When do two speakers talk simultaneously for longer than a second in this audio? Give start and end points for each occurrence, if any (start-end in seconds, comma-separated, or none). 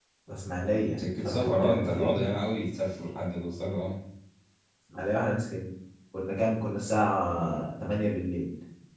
1.0-2.2